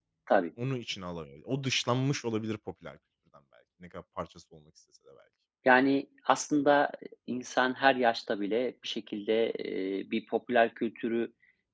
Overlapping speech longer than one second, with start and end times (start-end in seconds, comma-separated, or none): none